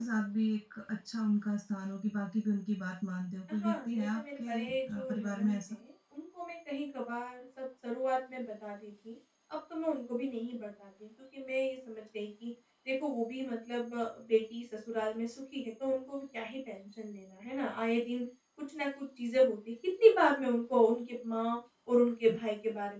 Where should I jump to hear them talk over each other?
3.6 s

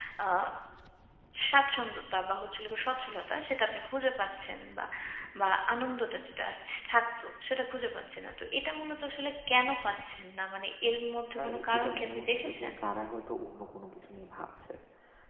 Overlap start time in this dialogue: 11.4 s

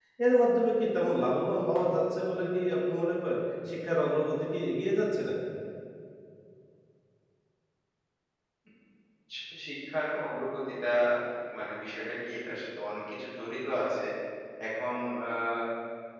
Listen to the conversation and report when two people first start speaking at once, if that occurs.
none

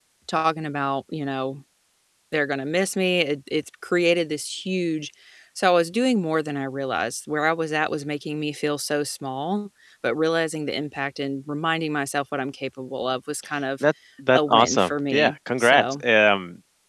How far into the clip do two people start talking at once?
14.3 s

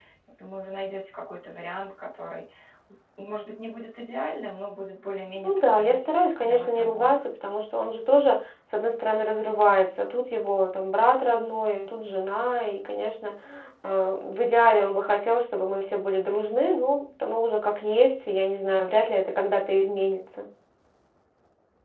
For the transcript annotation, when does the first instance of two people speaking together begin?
5.4 s

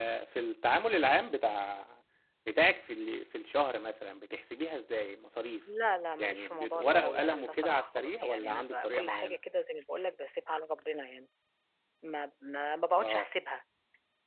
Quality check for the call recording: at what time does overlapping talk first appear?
6.2 s

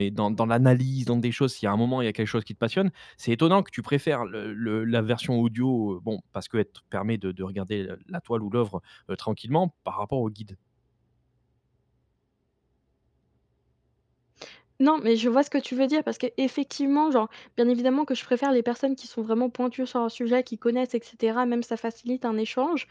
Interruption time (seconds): none

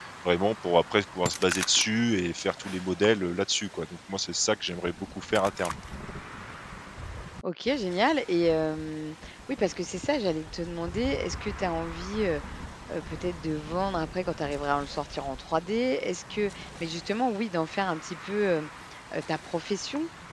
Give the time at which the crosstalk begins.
none

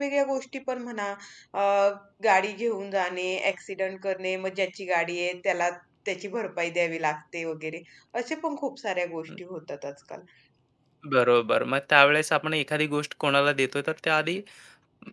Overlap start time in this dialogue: none

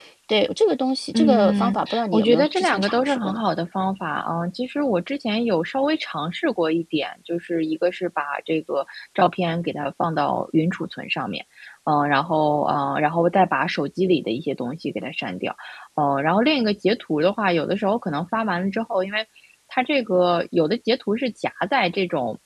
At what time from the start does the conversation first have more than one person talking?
1.2 s

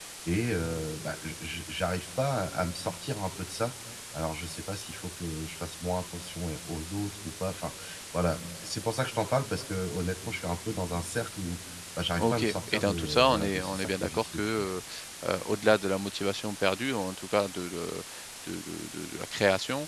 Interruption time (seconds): 12.2 s

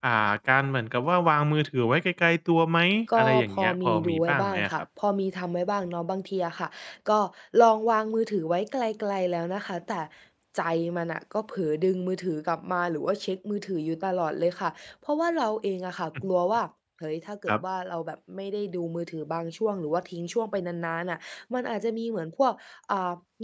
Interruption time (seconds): 3.1 s

